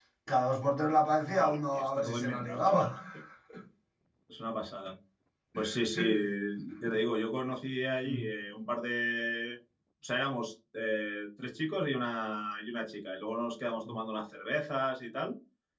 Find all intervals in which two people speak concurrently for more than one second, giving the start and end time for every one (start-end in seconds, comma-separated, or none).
1.4-2.9